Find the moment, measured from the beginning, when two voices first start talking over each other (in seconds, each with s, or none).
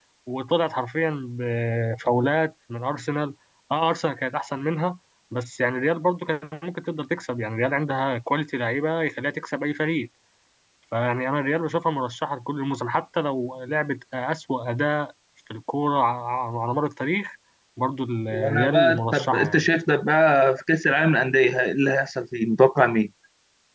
18.3 s